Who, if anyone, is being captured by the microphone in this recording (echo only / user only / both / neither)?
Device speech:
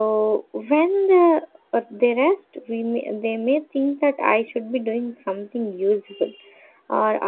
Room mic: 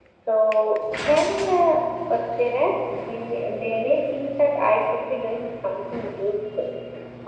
echo only